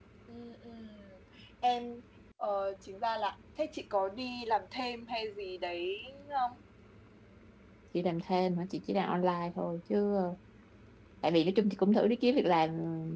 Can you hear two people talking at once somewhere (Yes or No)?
No